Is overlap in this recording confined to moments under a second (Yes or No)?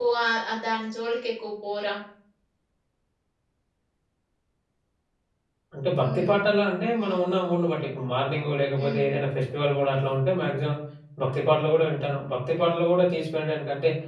Yes